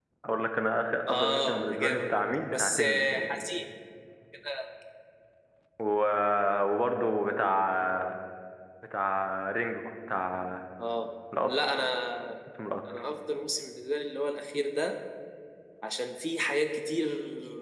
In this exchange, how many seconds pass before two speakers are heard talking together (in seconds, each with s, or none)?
1.1 s